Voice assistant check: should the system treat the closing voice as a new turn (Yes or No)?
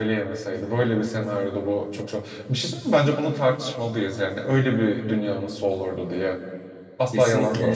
No